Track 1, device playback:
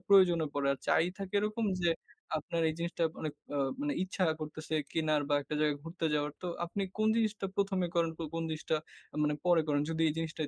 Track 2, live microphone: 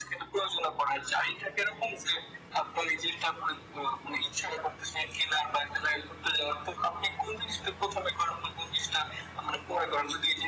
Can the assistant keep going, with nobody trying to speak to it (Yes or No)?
Yes